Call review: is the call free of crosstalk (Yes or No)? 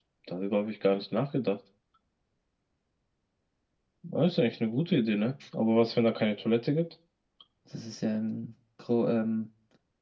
Yes